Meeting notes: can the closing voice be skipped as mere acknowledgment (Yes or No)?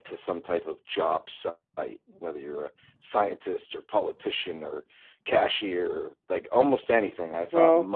Yes